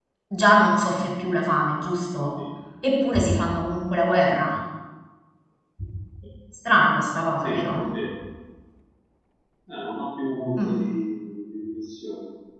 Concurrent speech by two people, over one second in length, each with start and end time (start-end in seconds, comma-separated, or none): none